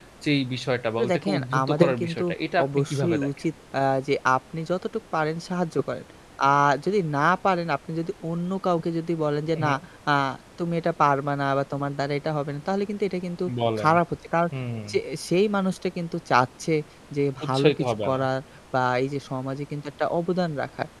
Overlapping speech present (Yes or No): Yes